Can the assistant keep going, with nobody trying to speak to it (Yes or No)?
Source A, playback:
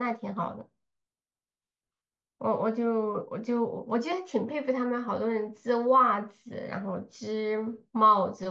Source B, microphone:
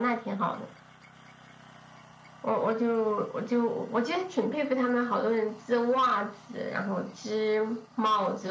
Yes